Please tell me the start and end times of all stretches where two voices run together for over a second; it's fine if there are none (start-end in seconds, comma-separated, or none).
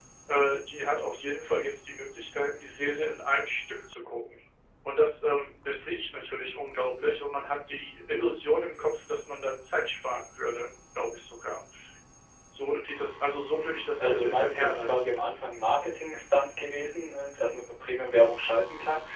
13.6-15.2